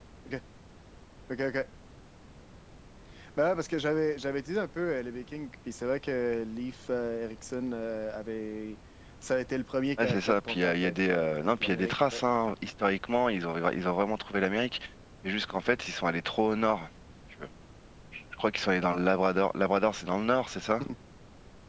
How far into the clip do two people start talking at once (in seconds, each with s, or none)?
10.0 s